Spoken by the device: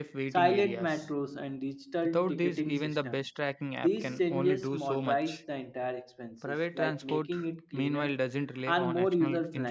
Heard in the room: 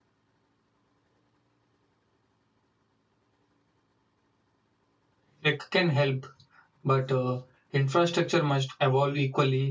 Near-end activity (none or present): present